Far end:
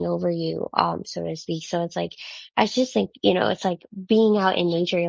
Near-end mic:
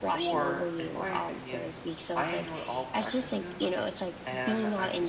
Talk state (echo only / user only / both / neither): both